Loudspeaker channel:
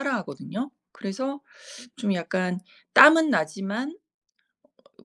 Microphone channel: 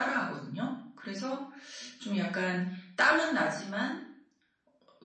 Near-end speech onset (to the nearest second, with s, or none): none